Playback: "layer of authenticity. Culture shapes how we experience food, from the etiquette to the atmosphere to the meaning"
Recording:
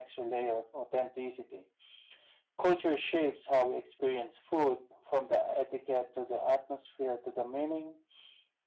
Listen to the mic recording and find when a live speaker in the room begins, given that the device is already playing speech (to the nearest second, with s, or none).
none